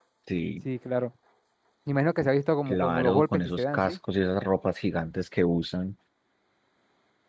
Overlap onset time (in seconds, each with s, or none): 2.7 s